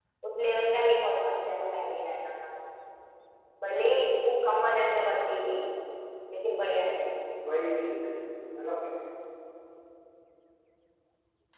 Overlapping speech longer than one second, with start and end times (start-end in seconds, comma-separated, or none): none